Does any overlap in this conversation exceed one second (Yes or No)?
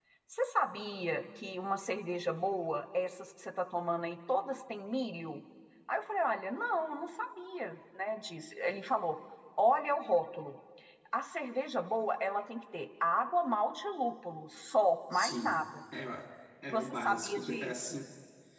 Yes